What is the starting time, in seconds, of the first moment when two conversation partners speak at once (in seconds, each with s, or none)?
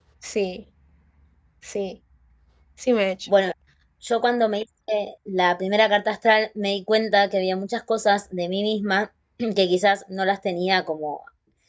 none